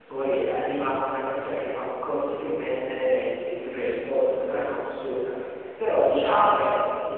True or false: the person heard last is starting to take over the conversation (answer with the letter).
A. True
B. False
B